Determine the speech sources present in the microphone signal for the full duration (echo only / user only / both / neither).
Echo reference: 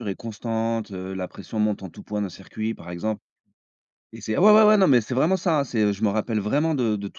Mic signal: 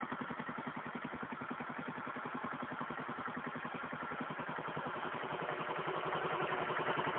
neither